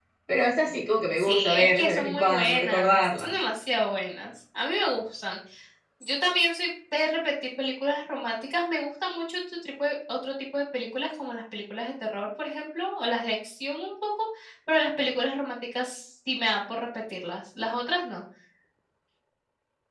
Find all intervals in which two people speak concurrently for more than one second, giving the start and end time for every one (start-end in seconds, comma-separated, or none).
1.2-3.3